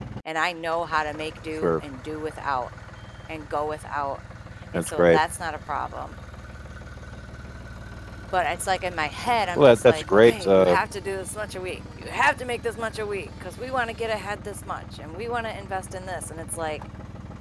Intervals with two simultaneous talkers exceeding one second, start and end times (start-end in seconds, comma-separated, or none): 9.6-10.8